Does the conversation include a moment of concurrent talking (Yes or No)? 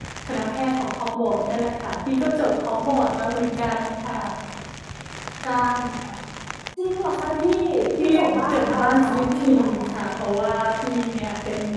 Yes